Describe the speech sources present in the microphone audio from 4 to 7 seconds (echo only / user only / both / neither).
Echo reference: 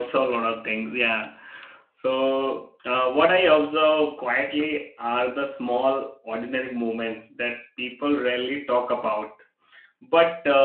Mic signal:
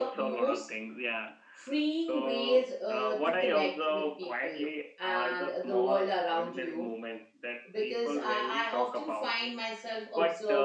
both